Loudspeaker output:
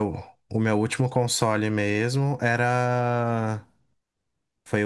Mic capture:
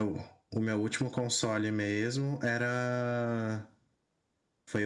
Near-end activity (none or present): none